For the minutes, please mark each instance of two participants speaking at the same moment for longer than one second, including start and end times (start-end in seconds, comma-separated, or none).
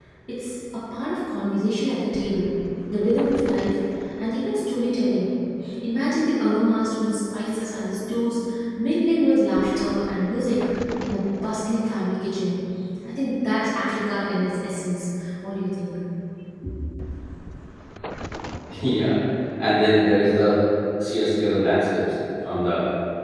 none